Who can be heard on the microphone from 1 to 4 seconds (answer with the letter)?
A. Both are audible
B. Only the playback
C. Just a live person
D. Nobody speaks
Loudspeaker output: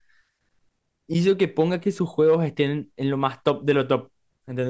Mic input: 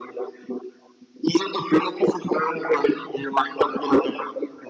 B